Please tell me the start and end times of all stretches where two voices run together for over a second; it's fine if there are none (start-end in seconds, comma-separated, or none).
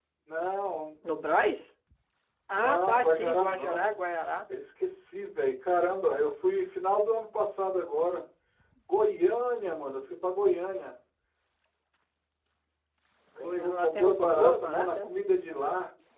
2.5-3.9, 13.4-15.1